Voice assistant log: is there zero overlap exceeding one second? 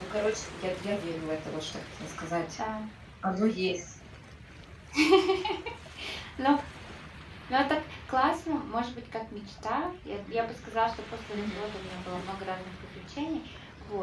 Yes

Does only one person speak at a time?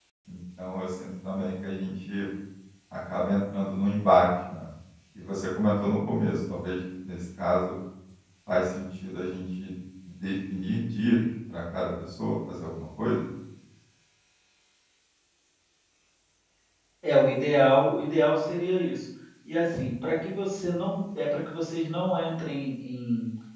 Yes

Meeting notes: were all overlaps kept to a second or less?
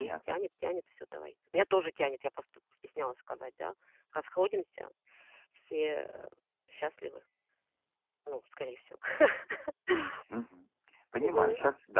Yes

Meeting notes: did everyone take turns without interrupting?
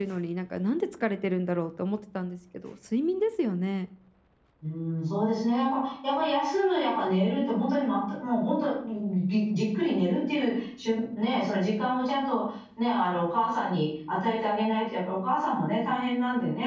Yes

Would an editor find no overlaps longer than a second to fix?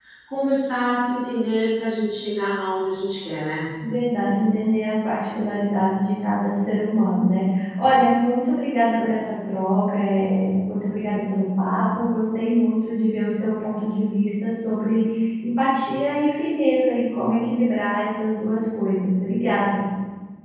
Yes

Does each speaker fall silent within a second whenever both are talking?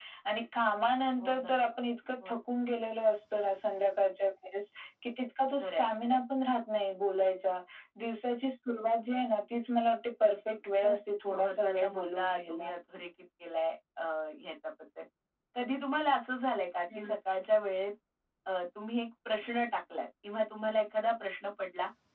No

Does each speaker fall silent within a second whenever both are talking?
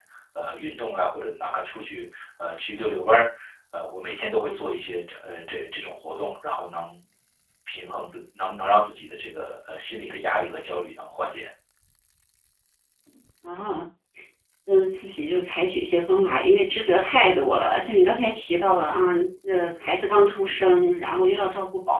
Yes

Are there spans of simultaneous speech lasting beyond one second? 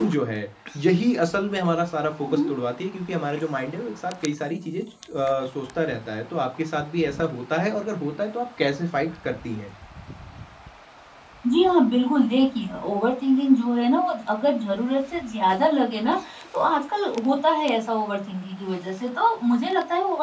No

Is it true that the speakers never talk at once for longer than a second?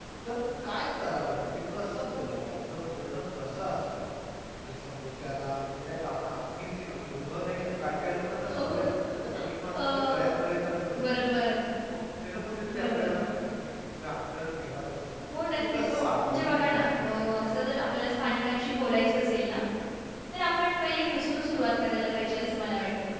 No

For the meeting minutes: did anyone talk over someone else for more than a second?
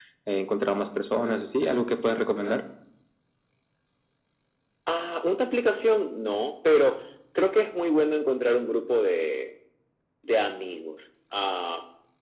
No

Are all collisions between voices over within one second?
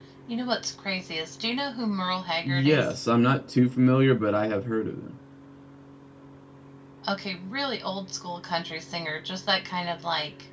Yes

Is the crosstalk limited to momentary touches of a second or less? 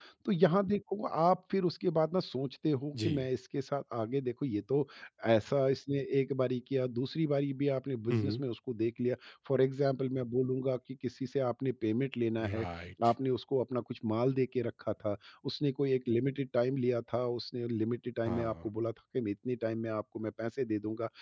Yes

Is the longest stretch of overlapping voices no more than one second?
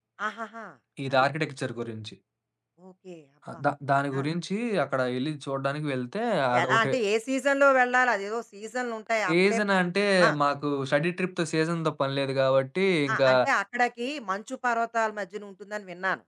Yes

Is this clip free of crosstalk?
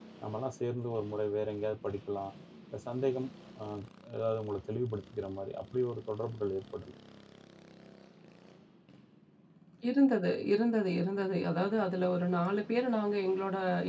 Yes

